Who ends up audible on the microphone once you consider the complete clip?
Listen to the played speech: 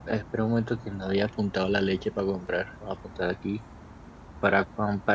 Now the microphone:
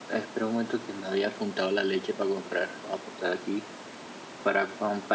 echo only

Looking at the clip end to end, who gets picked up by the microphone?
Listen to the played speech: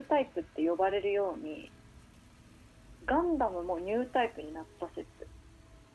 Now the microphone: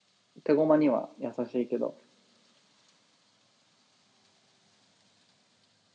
user only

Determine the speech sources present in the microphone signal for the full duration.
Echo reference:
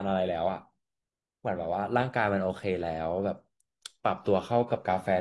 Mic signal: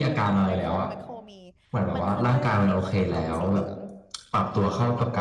both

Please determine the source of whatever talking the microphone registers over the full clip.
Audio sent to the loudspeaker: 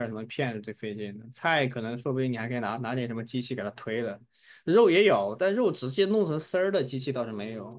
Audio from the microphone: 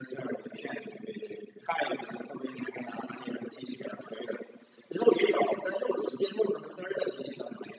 echo only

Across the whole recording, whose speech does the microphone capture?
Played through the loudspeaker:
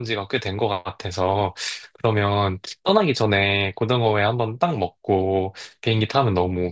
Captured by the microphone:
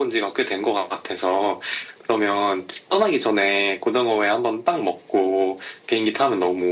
echo only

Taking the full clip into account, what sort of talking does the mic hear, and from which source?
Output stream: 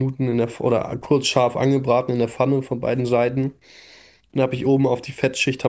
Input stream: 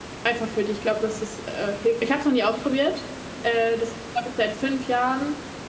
user only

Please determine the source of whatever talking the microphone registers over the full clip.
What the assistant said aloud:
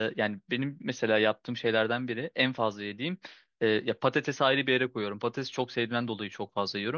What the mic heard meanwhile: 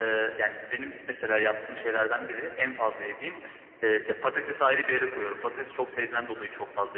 echo only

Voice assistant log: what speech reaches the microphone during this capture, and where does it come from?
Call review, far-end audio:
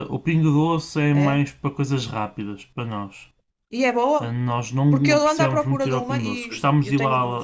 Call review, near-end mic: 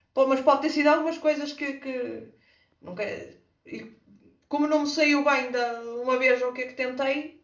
user only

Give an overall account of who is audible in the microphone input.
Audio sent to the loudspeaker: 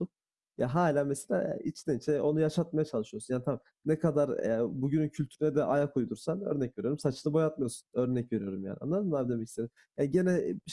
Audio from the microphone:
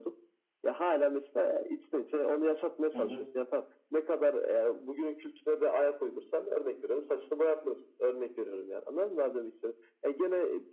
both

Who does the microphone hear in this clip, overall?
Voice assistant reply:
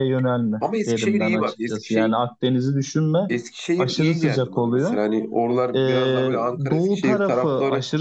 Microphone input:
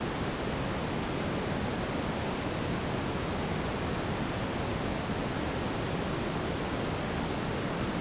neither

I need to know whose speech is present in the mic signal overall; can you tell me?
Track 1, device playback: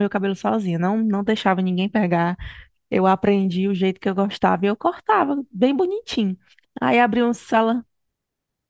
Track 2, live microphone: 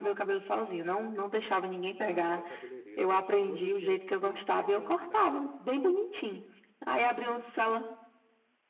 both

